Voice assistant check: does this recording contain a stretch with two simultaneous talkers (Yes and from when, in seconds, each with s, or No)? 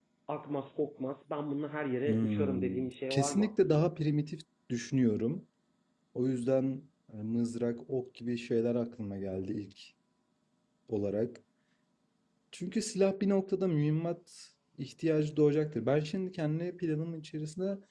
Yes, from 2.0 s